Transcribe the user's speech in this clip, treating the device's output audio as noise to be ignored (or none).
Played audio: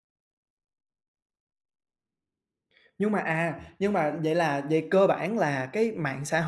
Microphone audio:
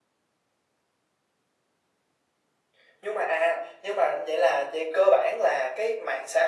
none